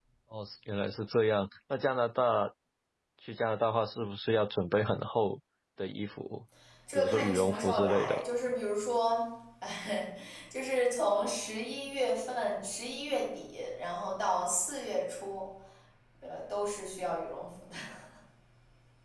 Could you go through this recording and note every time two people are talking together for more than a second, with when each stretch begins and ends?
7.0-8.2

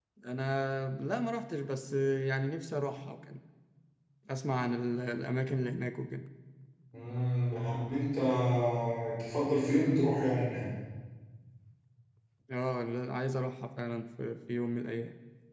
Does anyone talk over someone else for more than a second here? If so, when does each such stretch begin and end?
none

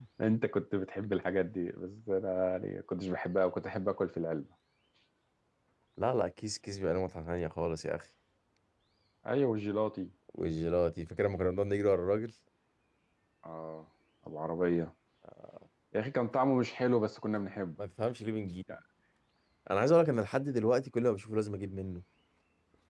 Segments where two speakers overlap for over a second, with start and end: none

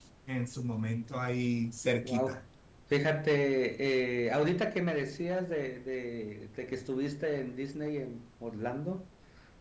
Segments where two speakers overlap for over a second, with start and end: none

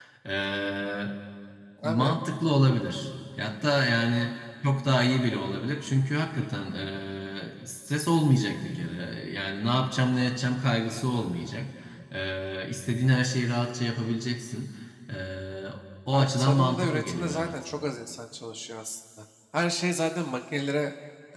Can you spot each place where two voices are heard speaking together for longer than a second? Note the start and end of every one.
16.1-17.5

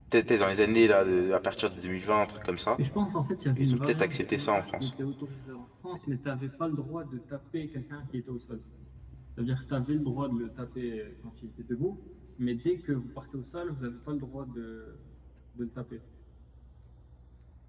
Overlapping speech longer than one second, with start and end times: 3.6-4.9

